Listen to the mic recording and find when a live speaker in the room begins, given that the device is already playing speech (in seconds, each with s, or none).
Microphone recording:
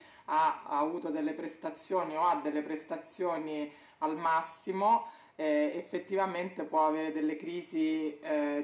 none